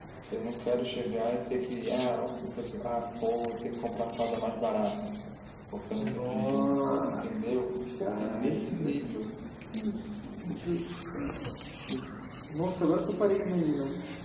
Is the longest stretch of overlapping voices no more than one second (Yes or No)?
No